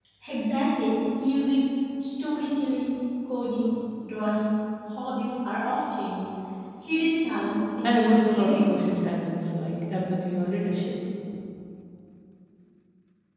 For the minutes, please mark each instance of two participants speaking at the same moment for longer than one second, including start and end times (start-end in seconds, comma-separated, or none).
7.8-9.2